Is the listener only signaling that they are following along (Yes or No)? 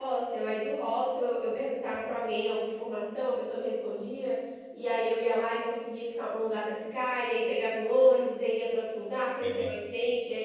Yes